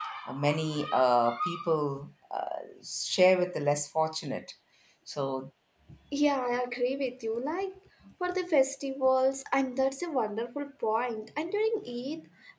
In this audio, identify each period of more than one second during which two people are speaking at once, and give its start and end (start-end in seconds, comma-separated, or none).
none